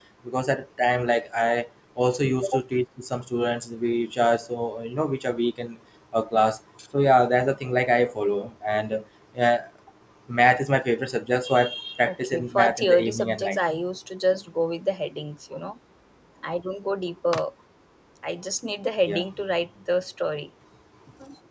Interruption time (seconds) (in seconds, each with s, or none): 12.0 s